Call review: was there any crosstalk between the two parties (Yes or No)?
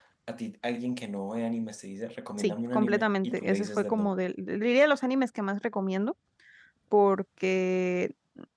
Yes